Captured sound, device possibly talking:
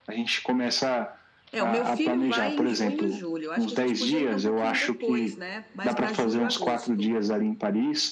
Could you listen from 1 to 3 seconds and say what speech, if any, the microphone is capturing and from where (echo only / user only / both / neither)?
both